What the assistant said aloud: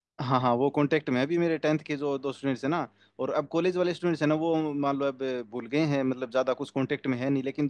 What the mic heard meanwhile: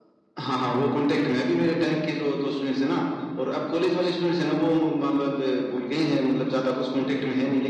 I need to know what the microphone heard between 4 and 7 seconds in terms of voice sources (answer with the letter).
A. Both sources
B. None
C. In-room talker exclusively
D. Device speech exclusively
D